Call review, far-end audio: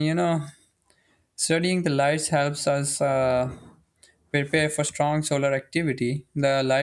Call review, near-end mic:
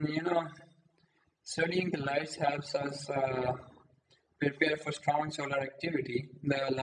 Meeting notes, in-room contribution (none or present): none